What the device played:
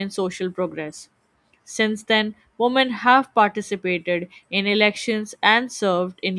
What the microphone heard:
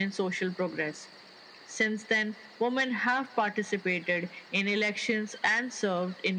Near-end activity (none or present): none